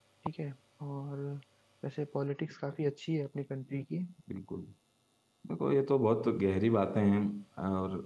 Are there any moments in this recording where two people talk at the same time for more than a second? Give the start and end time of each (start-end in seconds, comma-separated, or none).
none